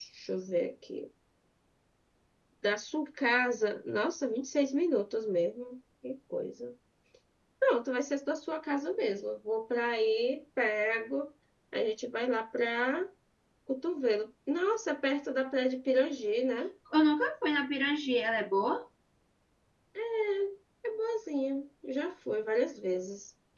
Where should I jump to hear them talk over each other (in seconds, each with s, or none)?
none